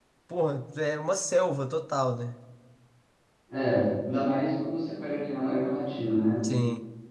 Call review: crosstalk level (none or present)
none